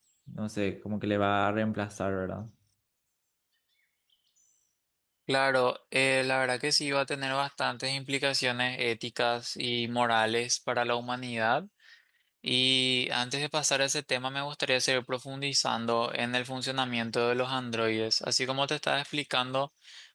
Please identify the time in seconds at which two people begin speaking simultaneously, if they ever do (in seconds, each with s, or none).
none